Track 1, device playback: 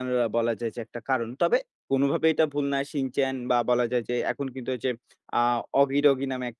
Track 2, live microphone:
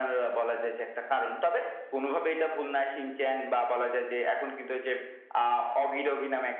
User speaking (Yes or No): No